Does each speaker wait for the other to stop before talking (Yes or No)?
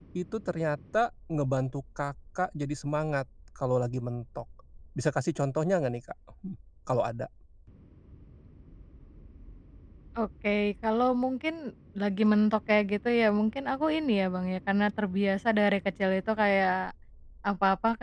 Yes